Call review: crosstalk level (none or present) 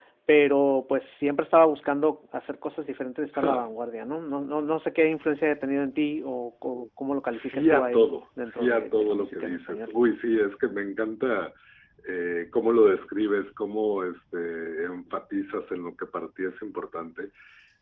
present